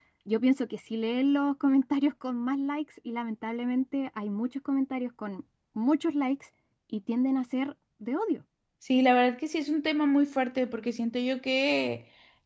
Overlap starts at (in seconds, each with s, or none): none